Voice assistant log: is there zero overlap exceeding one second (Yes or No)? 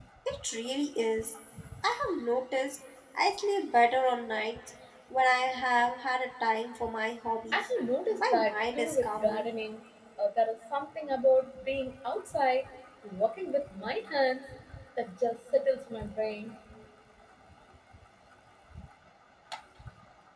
No